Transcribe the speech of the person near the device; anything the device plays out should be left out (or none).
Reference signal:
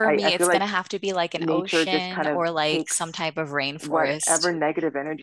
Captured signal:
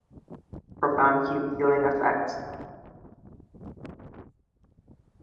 profound heal healing effect